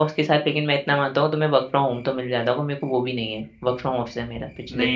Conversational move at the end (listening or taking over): taking over